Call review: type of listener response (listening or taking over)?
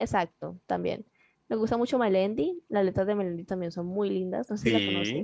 taking over